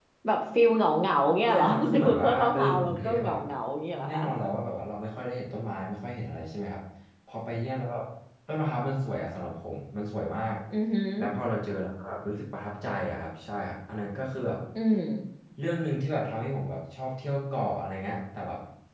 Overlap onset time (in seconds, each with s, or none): 1.4 s